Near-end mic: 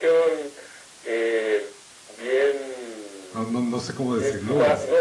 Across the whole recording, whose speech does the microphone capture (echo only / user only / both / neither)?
both